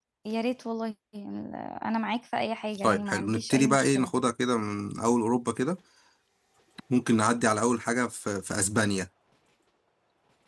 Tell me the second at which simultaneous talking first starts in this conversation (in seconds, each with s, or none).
2.8 s